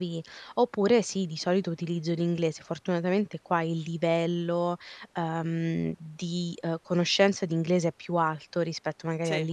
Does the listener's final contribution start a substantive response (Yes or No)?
No